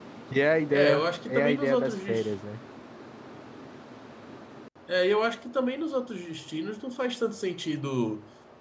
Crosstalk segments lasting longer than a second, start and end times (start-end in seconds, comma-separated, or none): 0.7-2.3